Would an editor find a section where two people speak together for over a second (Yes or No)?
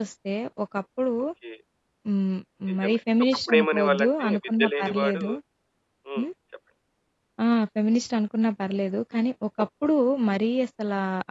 Yes